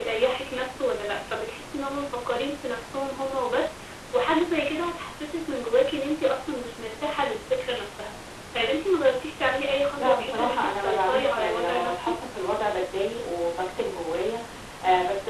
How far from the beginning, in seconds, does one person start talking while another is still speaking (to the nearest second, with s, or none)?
10 s